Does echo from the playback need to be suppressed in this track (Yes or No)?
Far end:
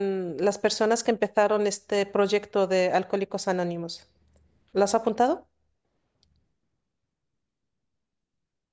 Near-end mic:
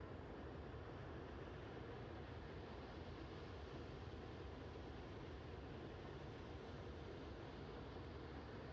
No